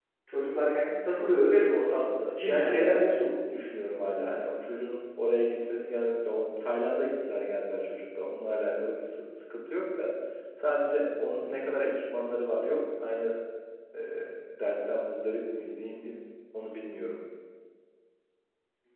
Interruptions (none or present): present